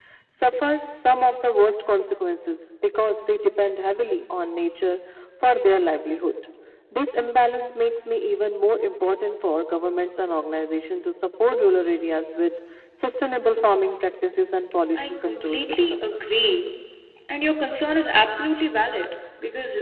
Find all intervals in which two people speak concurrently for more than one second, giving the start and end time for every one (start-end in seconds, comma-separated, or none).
14.9-16.2